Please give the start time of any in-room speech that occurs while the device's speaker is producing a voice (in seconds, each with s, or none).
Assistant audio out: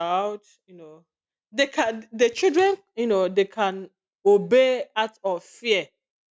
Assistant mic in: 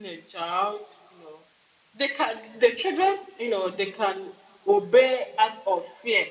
none